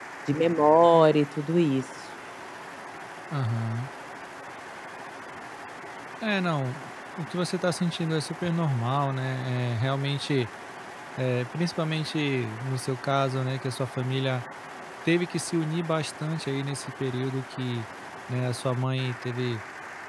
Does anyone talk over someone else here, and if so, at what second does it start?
none

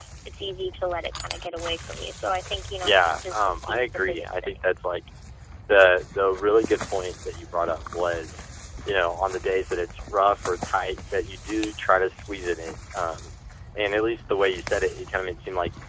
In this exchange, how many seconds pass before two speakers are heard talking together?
3 s

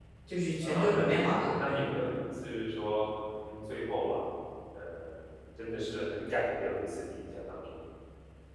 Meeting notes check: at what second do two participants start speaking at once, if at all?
1 s

